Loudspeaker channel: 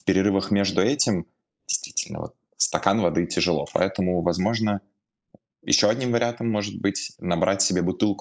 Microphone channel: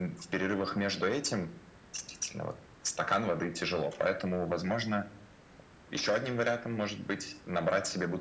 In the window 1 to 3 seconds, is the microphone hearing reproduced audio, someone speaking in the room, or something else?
echo only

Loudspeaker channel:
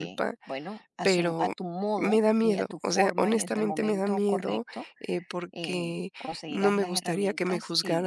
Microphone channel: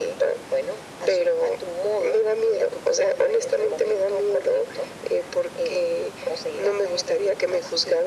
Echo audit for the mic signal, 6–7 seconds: echo only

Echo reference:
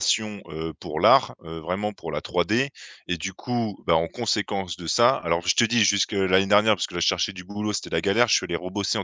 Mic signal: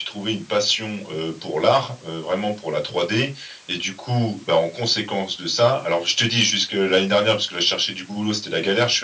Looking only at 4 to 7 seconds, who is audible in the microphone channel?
echo only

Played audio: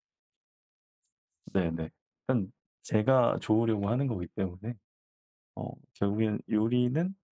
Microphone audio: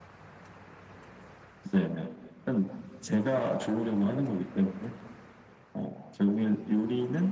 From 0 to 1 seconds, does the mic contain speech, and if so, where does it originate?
neither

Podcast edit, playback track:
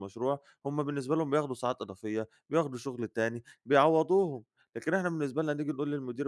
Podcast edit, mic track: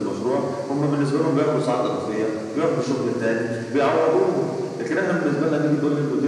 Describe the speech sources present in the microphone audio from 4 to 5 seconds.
echo only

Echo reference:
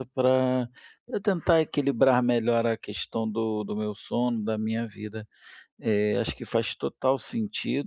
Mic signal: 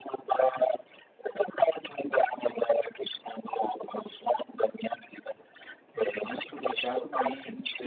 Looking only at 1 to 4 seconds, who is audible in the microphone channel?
echo only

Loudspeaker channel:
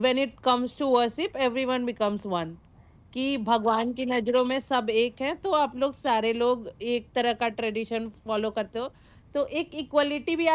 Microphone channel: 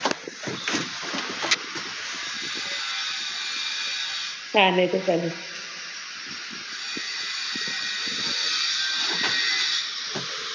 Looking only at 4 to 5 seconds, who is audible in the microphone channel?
user only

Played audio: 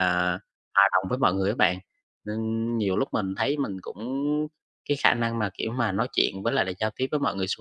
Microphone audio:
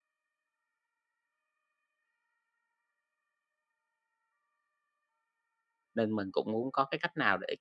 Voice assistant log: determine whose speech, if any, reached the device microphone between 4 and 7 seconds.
user only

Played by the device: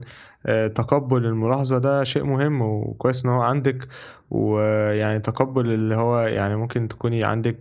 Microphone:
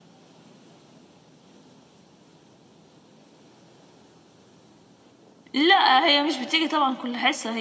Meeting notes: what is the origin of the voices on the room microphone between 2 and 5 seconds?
neither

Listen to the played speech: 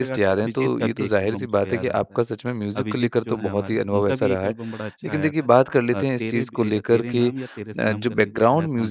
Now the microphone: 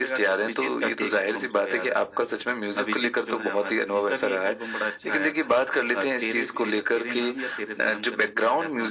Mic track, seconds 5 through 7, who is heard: echo only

